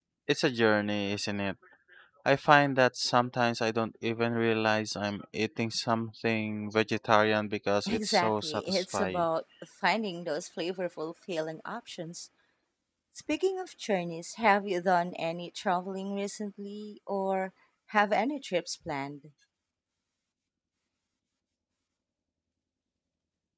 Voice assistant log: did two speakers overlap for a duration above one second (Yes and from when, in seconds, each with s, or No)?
Yes, from 7.9 s